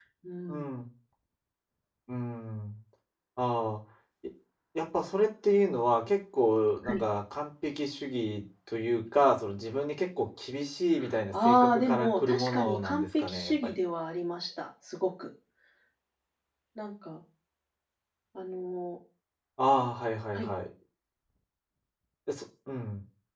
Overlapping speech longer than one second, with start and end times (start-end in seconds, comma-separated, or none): 11.4-13.8